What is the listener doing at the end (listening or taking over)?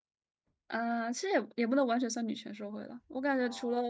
listening